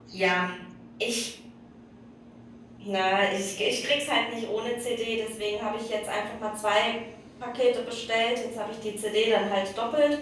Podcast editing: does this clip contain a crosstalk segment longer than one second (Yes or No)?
No